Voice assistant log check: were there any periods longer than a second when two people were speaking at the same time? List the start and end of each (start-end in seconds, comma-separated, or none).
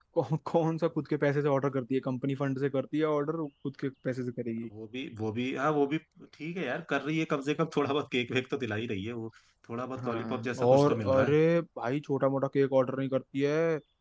10.0-11.3